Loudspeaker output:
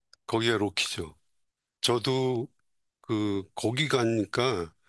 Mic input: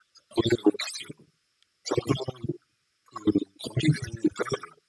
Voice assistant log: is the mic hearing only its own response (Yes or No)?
Yes